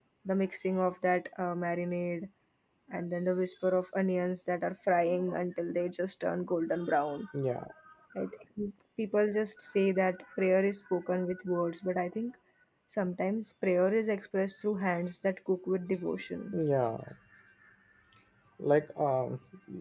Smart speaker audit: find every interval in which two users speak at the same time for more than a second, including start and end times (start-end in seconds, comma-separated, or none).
none